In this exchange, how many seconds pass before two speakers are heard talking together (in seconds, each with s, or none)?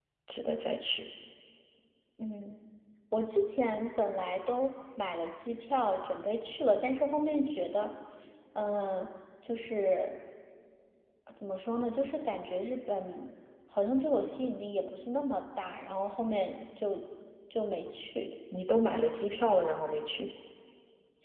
none